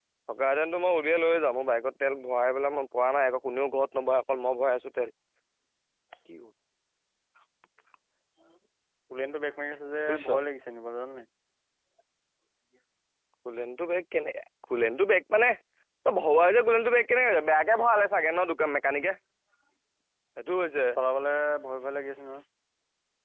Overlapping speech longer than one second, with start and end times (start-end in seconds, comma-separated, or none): none